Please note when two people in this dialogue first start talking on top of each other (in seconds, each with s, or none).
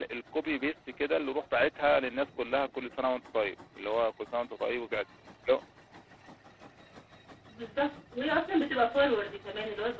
none